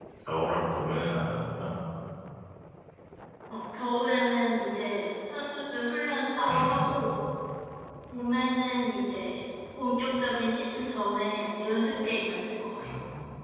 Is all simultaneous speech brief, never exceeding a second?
Yes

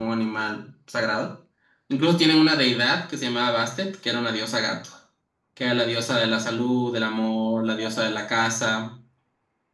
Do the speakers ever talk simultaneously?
No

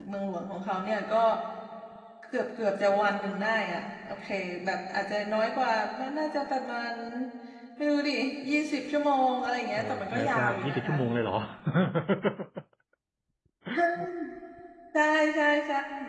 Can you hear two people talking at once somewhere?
Yes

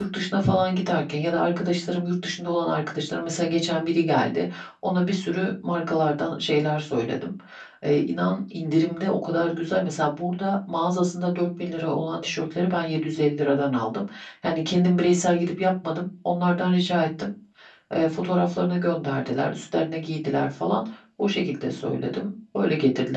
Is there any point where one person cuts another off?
No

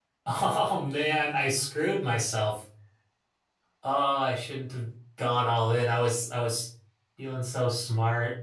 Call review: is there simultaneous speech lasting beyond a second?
No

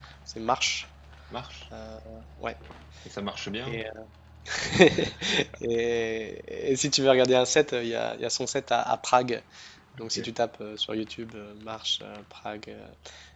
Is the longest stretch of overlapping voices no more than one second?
Yes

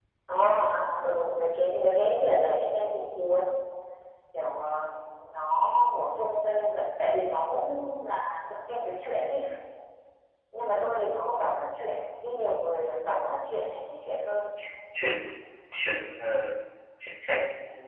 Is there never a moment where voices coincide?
Yes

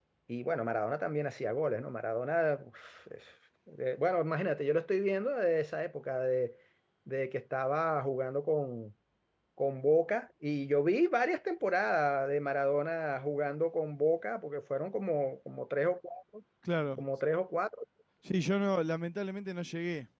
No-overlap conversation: Yes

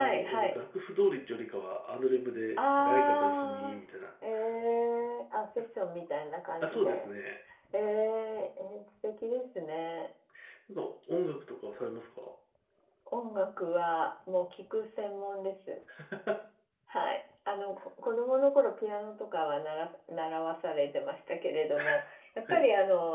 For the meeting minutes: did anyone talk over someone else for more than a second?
Yes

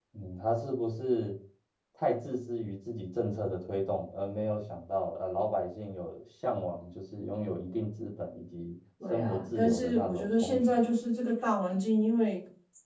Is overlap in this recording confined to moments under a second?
No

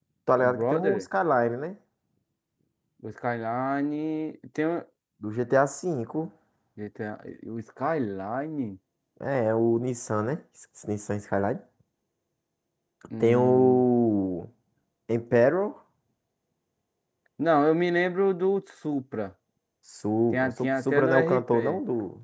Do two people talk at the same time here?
Yes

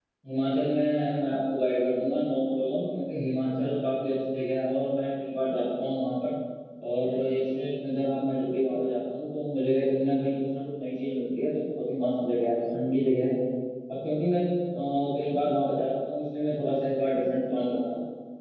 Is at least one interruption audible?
No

